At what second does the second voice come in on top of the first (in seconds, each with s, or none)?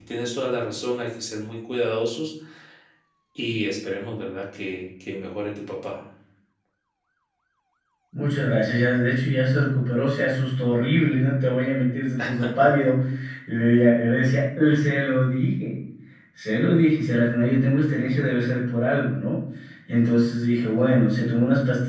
none